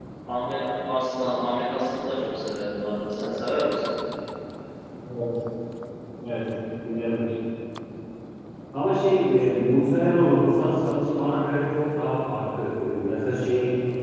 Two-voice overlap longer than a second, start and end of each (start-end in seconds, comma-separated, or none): none